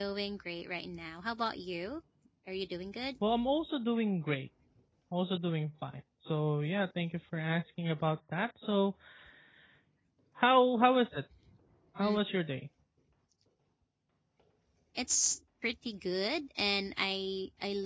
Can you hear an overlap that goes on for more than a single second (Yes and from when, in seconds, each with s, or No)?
No